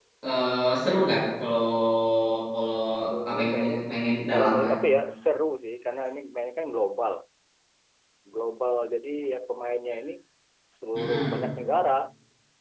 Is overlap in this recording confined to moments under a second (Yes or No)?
No